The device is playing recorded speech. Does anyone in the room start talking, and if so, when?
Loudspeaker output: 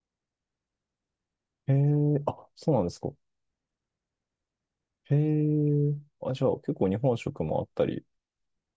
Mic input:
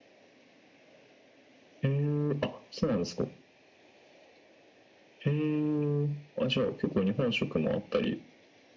none

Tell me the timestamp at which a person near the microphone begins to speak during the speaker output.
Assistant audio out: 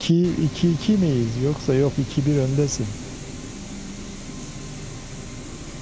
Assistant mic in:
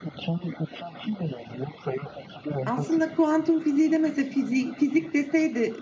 2.6 s

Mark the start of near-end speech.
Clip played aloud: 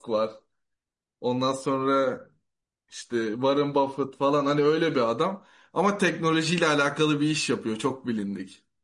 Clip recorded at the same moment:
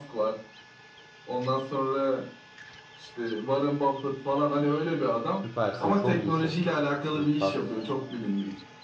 5.4 s

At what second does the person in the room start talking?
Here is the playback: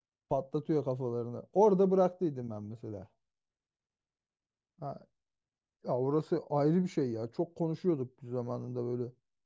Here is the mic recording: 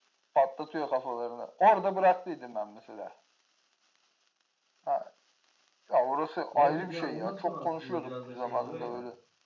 6.5 s

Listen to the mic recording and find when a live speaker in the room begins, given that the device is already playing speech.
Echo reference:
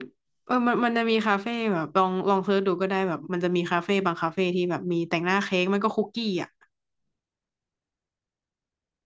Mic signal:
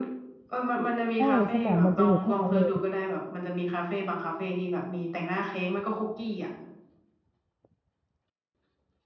1.2 s

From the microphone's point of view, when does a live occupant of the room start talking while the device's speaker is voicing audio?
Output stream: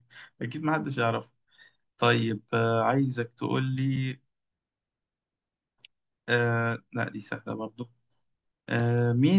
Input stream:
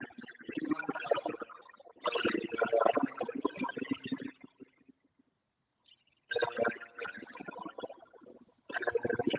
none

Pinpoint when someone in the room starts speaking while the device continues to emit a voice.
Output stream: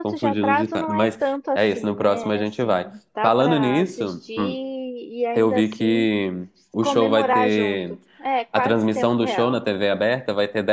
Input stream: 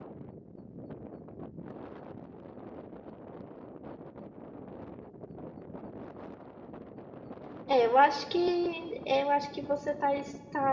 7.7 s

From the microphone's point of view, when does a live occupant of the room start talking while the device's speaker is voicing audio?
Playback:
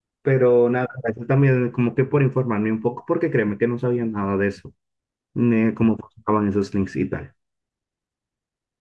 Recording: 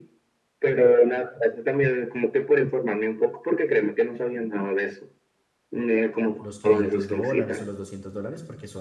6.4 s

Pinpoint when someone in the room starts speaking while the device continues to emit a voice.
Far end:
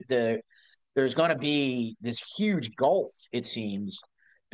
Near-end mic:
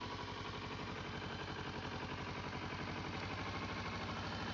none

